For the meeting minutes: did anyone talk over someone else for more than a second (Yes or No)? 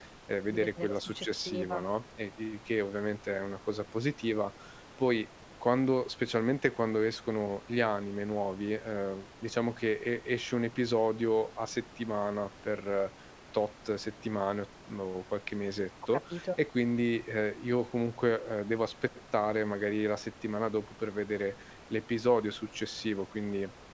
Yes